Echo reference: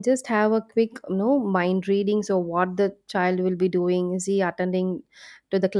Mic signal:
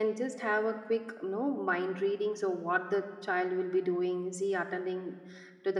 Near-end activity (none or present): none